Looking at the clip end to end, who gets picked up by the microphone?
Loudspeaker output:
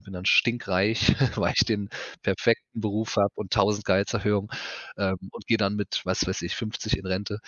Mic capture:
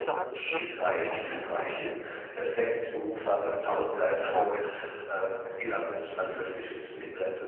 both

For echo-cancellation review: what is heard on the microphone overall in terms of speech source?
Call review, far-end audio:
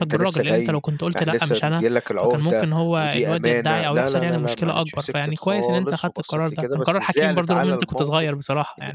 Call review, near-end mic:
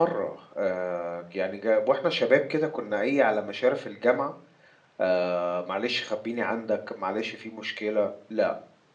user only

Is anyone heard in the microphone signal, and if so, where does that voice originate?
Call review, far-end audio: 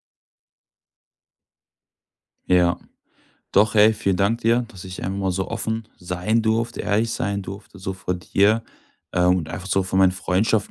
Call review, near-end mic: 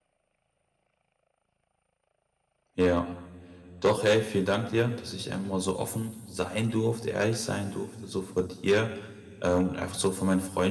echo only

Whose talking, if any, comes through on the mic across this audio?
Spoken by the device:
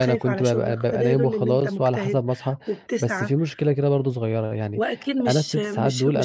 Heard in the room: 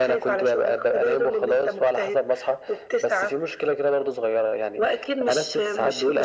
echo only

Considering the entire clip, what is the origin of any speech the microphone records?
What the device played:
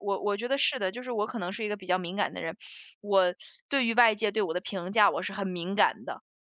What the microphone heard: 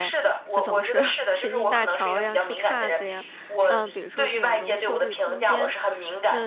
both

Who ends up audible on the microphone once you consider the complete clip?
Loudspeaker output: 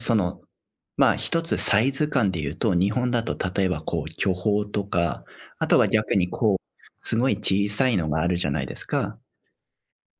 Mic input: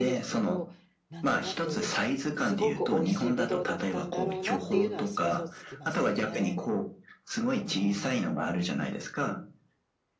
both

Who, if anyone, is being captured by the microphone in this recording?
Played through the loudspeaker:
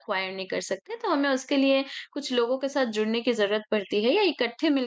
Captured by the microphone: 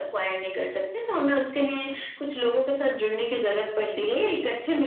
echo only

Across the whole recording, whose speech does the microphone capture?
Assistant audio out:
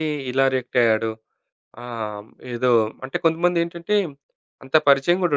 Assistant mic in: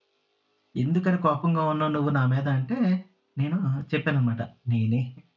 user only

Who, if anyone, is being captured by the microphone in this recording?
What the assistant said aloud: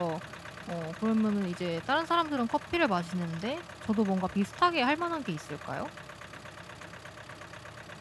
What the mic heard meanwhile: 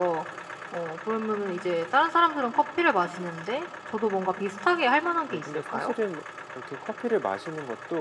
both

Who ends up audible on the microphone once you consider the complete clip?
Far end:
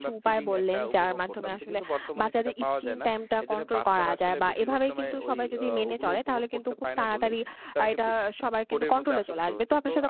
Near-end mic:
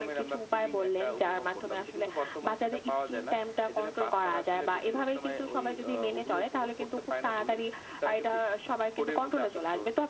echo only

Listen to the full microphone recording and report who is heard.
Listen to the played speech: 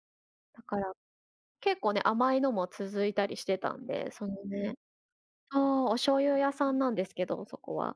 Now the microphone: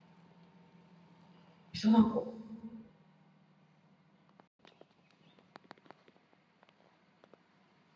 user only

